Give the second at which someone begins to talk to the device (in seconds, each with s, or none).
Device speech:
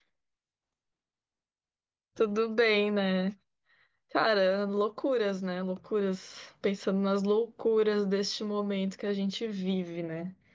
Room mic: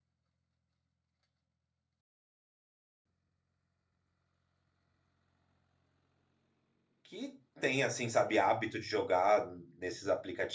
7.0 s